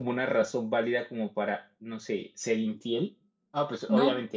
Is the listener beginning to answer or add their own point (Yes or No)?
No